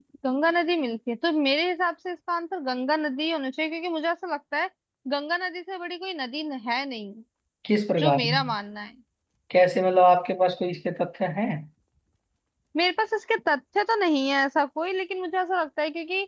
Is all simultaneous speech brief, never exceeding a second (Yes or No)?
Yes